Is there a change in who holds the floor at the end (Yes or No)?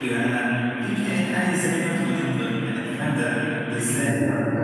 Yes